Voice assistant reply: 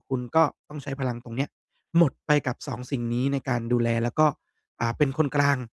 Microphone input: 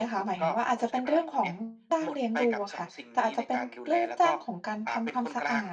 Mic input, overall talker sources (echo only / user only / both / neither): both